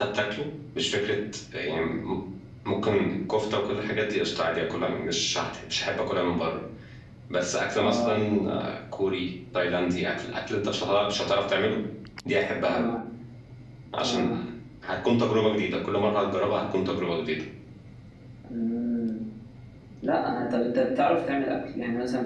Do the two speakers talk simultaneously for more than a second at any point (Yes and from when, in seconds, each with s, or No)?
No